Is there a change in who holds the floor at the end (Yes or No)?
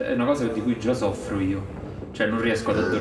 No